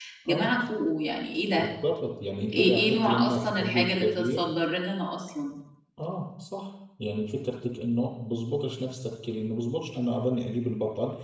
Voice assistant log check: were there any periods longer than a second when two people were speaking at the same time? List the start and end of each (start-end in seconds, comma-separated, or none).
2.5-4.4